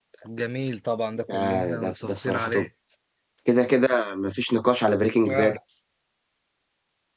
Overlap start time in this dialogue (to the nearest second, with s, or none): 1 s